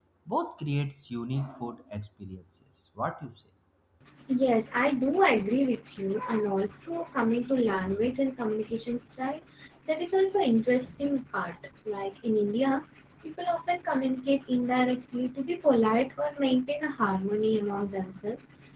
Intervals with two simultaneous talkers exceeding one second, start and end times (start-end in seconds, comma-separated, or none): none